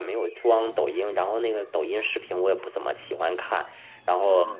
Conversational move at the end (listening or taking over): listening